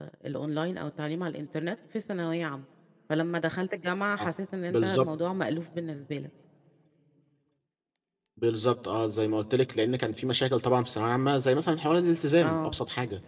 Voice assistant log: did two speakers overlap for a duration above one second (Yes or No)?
No